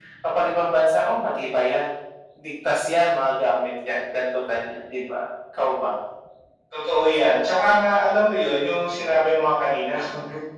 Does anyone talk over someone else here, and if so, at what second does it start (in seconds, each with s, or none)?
none